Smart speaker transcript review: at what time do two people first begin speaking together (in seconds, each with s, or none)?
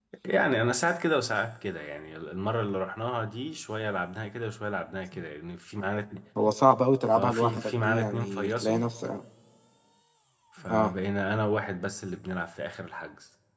7.2 s